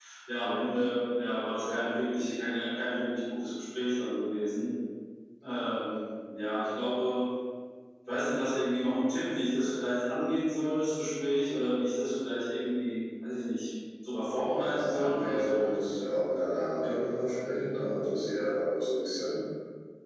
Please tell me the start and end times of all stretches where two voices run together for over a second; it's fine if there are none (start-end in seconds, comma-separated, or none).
14.4-15.7